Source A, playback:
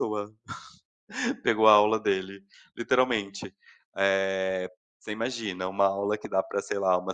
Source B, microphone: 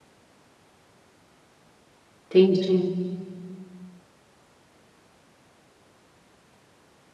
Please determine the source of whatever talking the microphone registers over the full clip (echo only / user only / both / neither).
user only